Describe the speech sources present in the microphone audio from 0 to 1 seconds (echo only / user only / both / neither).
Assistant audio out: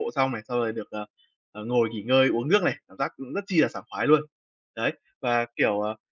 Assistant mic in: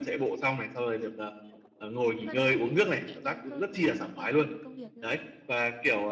echo only